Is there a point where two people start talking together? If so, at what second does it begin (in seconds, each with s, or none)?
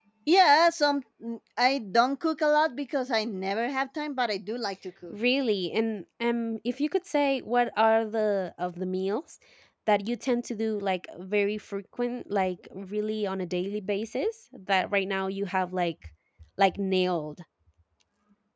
none